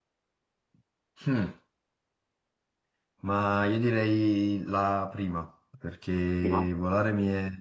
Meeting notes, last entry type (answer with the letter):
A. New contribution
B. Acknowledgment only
B